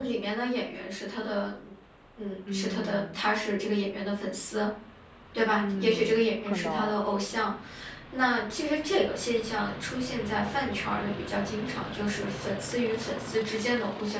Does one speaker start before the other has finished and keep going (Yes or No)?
Yes